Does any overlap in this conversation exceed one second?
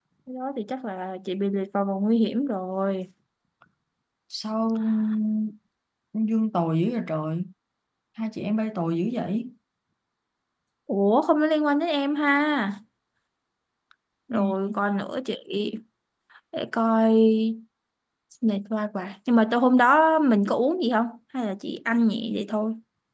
No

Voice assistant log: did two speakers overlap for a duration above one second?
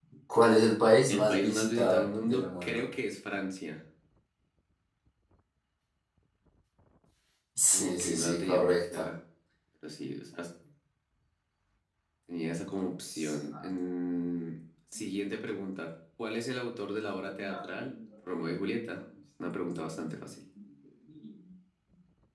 Yes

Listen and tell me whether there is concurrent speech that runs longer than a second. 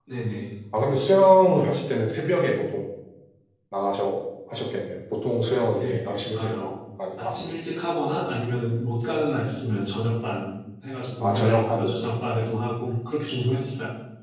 Yes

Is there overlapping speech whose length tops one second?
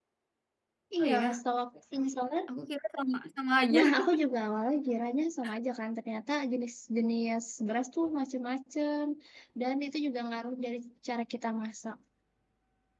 No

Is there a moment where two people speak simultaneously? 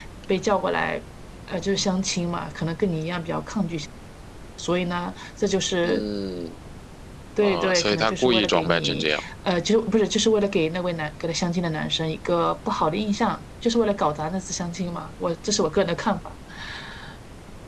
Yes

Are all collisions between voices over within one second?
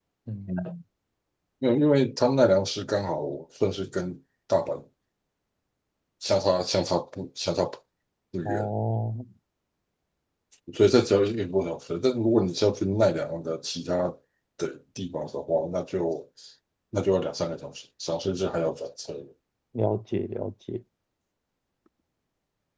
Yes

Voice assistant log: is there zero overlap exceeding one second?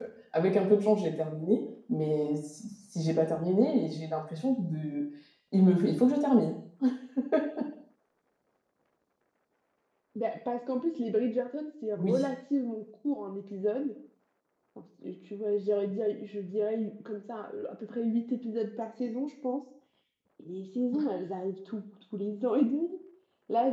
Yes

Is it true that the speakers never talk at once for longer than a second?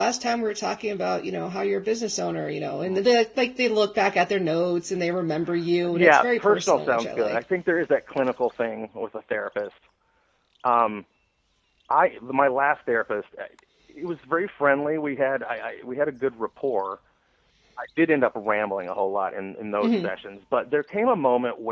No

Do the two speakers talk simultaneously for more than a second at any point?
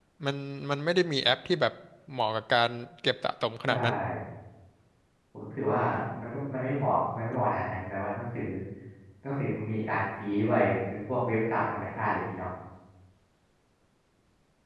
No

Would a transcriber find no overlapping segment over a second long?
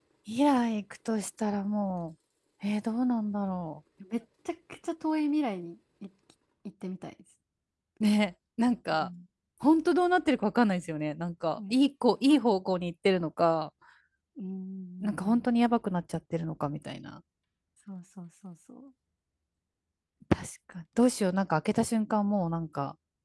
Yes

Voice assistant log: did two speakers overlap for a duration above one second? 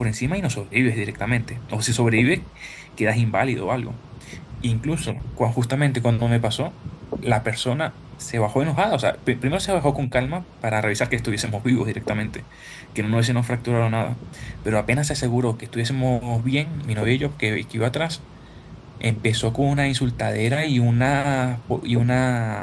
No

